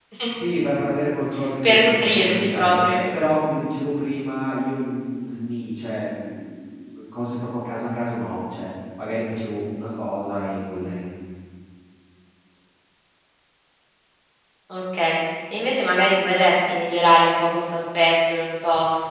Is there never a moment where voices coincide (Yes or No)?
No